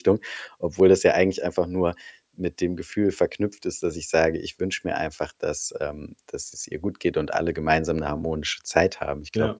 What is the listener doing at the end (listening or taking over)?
listening